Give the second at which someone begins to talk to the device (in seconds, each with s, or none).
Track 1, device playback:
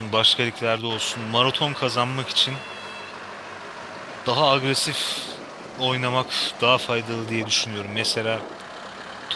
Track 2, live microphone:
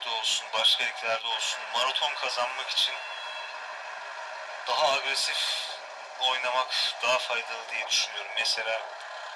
none